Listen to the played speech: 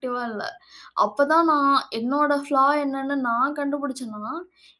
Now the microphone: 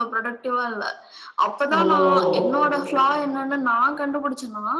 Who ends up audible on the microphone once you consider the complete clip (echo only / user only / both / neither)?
both